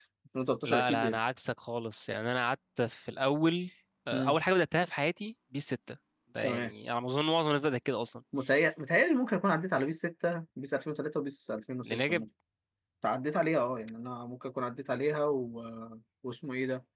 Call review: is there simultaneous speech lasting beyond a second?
No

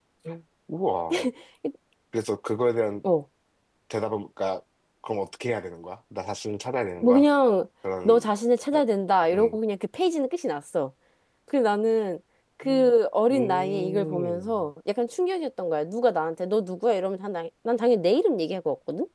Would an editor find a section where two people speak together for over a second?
Yes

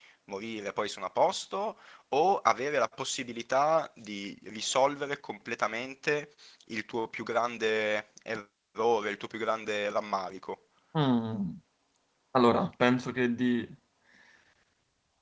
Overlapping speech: No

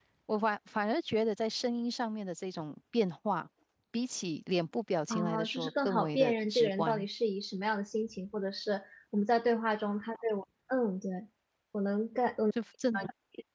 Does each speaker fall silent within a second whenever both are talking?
No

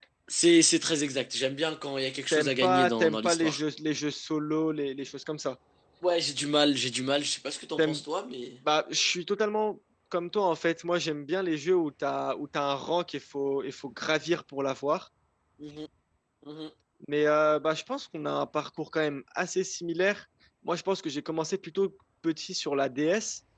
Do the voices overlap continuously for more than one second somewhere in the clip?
Yes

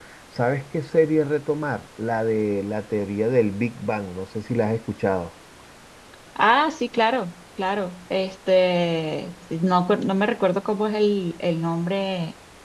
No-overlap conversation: Yes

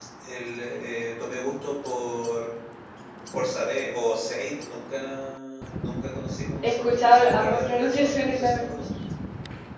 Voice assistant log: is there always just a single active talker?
No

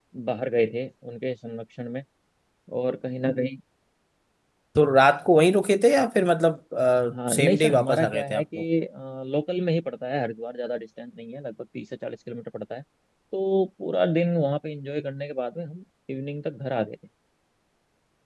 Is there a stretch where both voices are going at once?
Yes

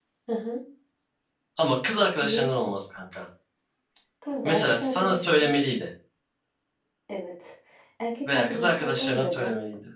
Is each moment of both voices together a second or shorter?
No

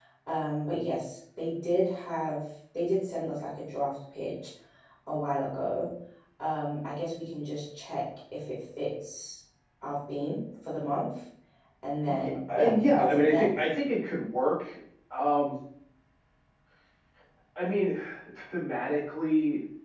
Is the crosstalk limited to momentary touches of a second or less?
No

